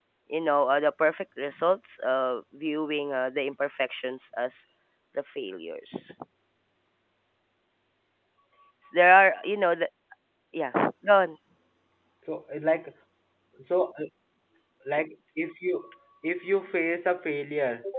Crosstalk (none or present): none